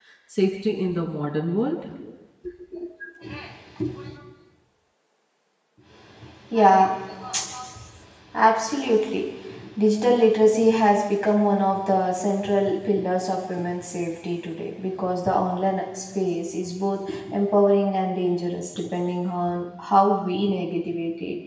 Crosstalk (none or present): none